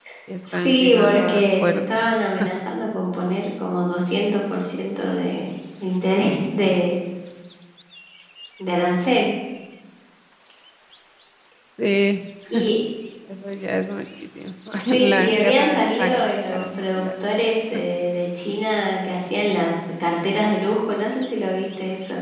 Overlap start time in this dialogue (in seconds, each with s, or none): 0.5 s